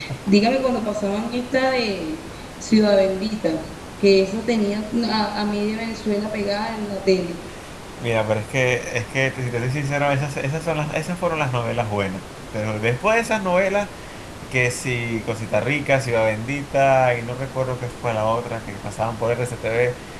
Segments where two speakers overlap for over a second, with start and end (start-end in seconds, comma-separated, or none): none